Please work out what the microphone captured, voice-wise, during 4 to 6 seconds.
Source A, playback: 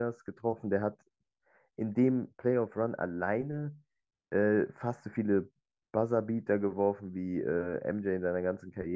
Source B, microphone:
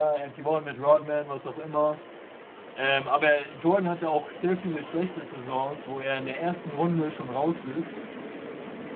user only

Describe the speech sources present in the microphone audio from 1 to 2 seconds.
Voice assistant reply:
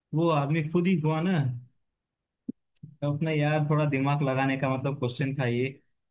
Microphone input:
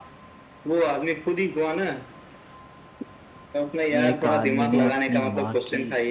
echo only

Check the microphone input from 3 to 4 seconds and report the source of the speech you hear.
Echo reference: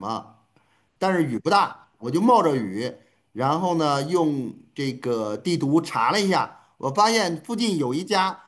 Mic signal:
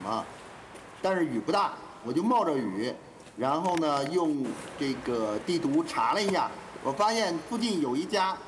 echo only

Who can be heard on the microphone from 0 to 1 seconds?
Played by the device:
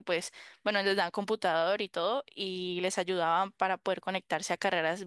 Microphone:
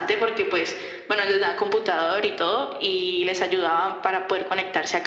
echo only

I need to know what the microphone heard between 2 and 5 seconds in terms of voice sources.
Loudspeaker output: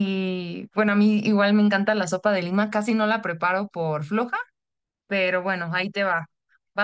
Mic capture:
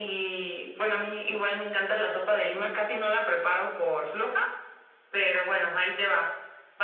echo only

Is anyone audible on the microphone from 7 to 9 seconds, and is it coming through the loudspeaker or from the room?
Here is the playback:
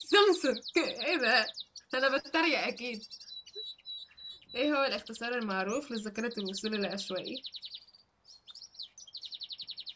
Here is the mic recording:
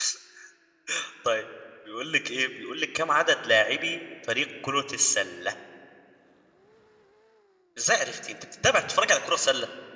user only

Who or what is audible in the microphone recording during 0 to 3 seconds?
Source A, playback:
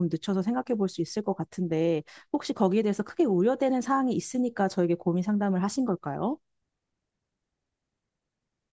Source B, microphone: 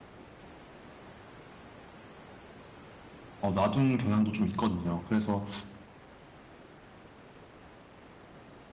neither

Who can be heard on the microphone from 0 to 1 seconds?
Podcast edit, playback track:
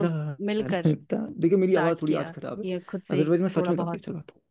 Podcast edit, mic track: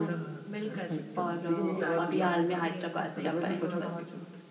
echo only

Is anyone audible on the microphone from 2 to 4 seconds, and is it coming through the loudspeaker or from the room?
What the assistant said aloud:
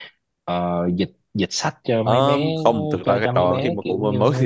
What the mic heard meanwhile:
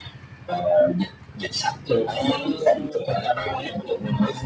echo only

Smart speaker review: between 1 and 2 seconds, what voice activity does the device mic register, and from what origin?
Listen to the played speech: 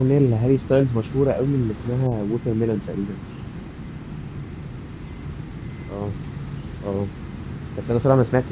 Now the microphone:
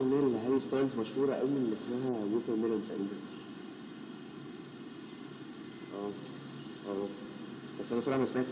echo only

